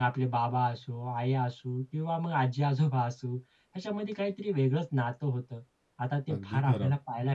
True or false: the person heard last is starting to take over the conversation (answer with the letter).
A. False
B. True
A